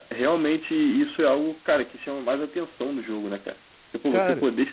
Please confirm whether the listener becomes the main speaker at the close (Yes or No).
No